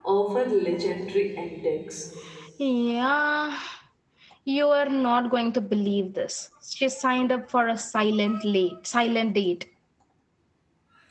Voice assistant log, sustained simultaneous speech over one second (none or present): none